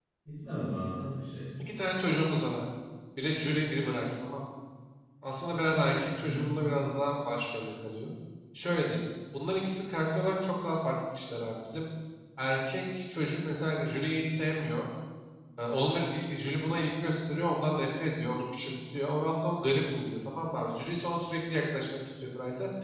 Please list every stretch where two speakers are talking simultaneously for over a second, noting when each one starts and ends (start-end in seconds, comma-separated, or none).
none